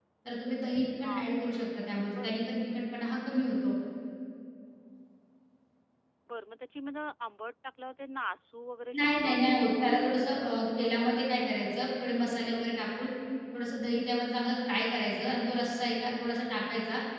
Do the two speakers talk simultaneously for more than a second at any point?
Yes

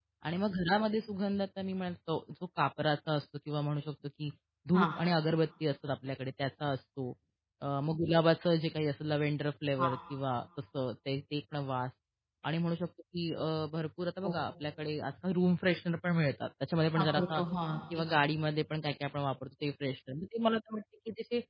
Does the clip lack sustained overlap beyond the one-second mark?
Yes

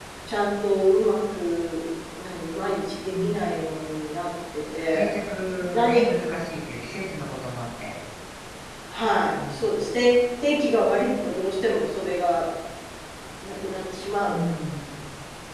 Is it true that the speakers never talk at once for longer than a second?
Yes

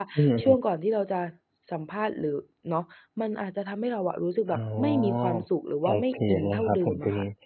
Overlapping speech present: Yes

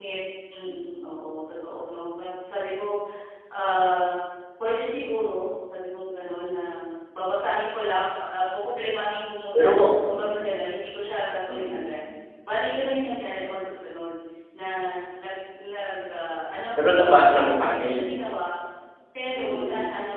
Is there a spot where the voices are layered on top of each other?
Yes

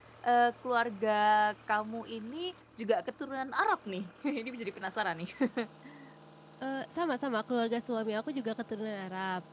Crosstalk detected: No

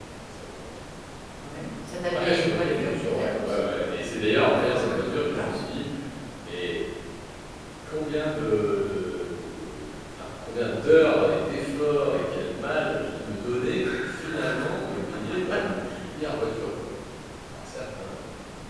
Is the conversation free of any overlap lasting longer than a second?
No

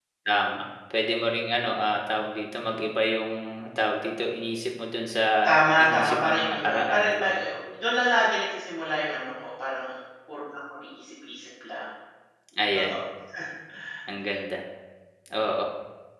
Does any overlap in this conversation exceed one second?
Yes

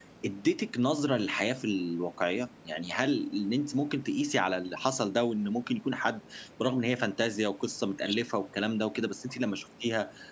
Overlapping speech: No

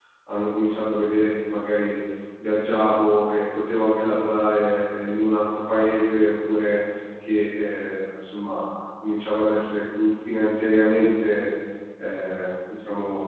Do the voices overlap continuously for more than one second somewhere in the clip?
No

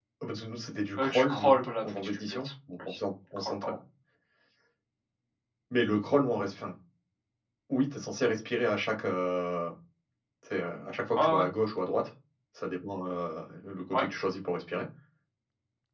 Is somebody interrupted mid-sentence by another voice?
Yes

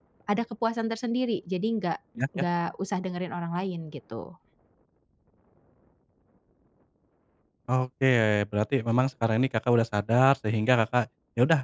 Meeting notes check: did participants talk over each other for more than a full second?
No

